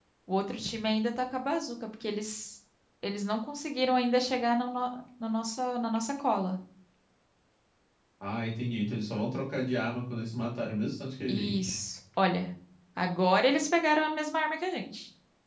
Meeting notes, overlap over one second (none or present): none